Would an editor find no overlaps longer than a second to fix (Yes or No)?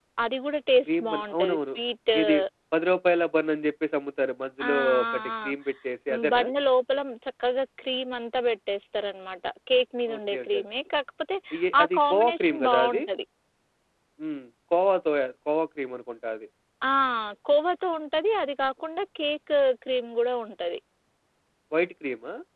No